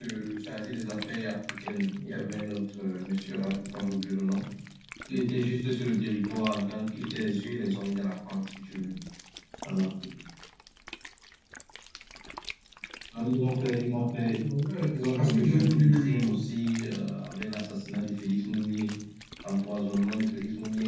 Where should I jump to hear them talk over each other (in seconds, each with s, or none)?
14.9 s